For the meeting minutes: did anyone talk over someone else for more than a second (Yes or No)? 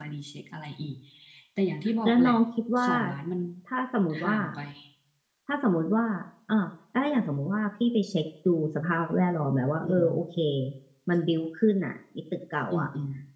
No